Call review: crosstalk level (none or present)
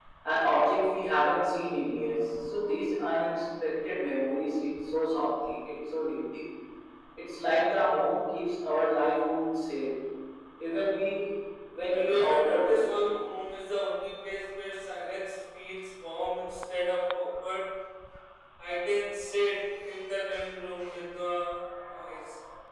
present